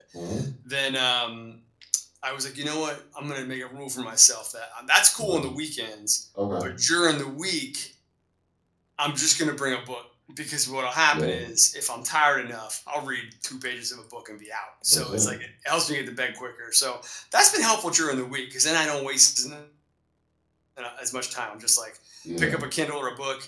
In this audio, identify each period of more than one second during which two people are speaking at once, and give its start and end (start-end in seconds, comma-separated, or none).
none